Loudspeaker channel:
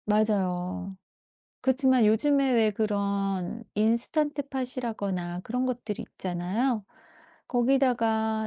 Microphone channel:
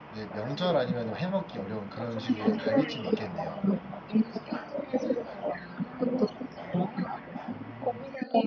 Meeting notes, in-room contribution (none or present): present